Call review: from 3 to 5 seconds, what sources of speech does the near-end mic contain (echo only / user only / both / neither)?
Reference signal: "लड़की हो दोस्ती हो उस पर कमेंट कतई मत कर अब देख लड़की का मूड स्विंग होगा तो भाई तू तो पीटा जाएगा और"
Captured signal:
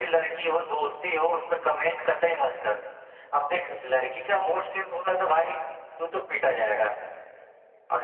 echo only